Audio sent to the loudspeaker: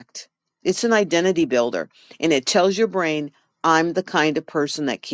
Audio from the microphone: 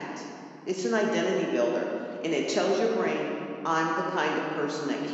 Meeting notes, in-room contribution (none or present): none